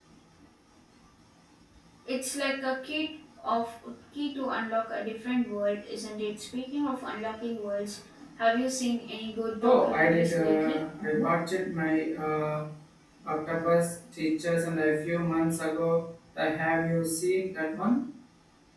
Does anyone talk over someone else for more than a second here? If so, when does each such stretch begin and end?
9.6-10.8

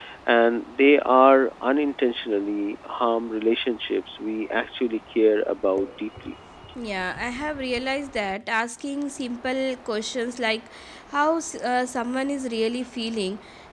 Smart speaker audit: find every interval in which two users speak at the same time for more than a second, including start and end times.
none

